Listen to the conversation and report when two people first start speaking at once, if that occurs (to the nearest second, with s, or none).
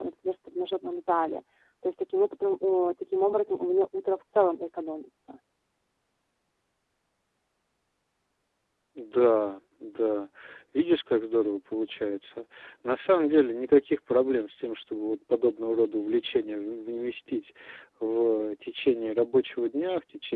none